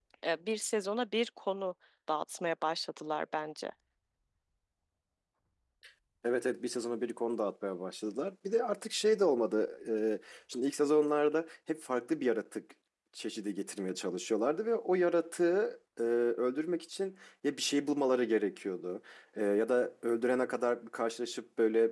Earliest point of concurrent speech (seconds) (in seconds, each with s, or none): none